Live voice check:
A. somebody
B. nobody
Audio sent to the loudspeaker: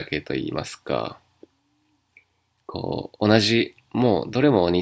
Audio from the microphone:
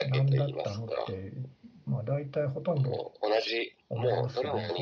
A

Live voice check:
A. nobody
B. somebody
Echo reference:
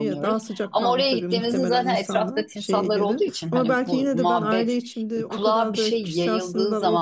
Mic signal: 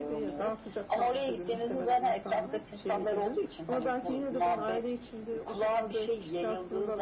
A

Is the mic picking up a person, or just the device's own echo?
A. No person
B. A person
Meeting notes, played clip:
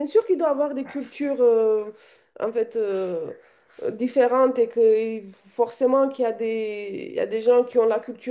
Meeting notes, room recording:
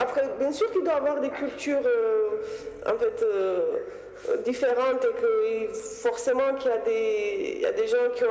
A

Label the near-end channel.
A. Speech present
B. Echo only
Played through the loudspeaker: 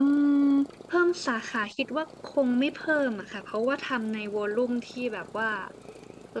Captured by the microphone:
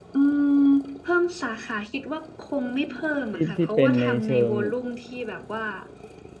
A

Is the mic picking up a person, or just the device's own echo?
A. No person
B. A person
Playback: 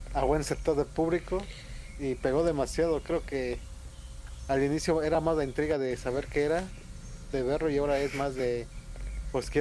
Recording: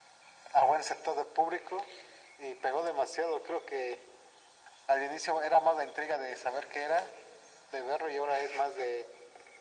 A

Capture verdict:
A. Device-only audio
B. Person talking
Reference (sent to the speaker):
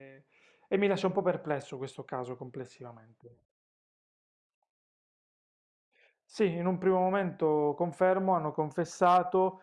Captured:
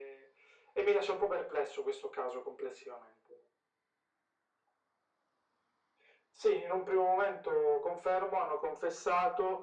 A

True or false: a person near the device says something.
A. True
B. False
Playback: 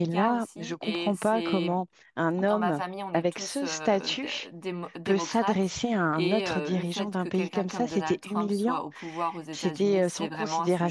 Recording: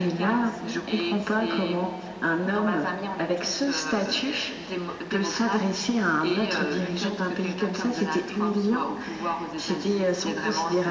B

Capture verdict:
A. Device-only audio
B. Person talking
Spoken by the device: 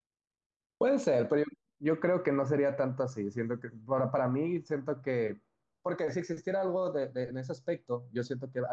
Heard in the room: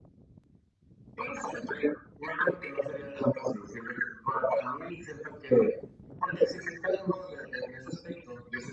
A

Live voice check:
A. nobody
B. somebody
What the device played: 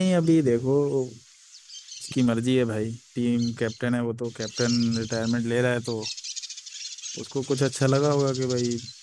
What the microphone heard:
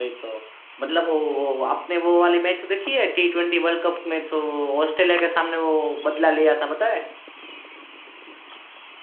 B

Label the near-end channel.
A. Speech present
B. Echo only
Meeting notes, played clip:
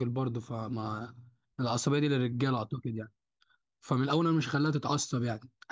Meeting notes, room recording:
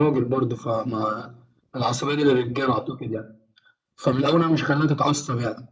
B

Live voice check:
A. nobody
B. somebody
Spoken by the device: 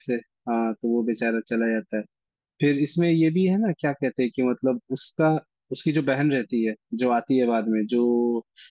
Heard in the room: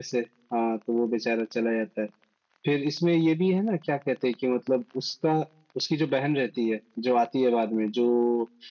A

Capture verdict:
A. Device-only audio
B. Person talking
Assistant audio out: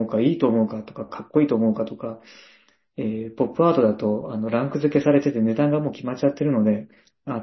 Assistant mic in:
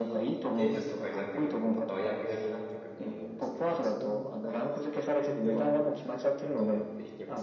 B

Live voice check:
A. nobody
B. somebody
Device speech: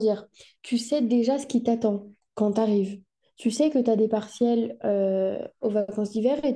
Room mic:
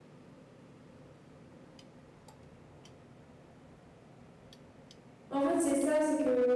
B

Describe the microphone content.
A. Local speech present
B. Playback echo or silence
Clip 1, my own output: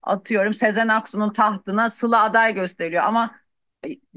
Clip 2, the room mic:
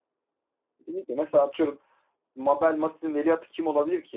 A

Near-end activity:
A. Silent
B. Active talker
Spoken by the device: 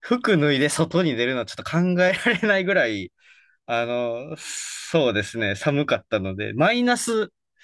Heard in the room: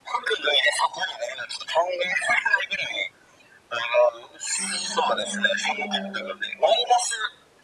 B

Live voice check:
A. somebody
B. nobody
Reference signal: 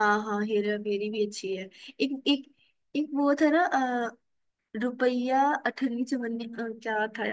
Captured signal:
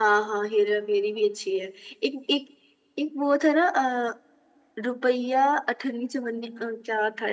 B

